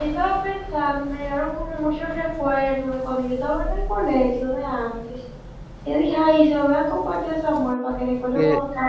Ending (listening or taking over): taking over